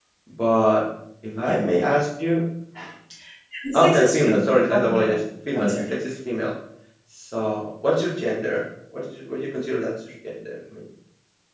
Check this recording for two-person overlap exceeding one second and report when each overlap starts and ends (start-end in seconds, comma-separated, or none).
3.7-5.1